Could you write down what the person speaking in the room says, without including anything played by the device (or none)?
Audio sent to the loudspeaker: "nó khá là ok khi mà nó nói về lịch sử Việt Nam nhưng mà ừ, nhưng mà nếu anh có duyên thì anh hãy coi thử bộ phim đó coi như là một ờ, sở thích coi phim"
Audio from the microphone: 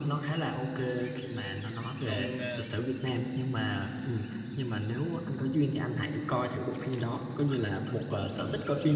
còn ờ,